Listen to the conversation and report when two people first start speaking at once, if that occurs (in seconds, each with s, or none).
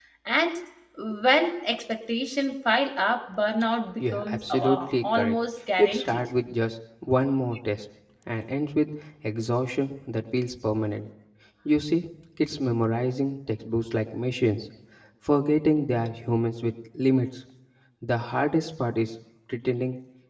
4.0 s